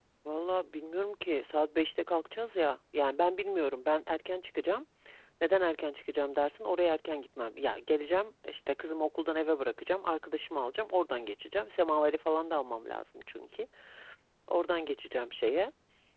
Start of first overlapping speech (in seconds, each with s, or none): none